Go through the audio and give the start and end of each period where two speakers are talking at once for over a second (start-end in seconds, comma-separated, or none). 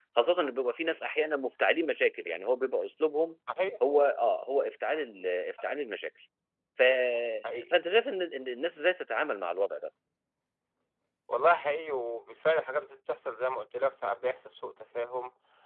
none